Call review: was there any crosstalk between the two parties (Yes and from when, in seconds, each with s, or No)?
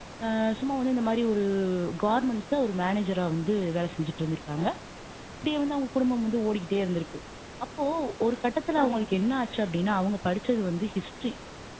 No